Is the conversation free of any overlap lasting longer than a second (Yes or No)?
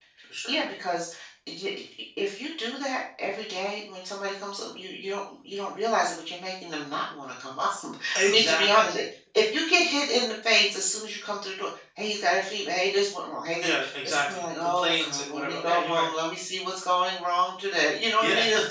No